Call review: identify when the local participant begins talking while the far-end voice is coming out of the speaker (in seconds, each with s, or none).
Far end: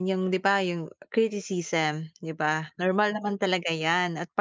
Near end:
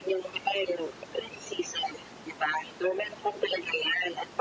none